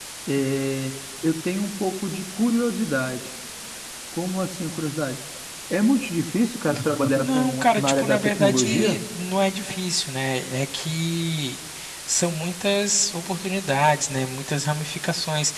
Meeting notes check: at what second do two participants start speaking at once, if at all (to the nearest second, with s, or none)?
7 s